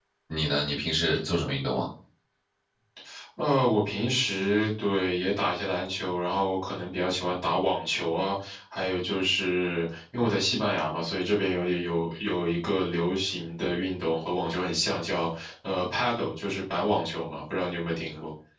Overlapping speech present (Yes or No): No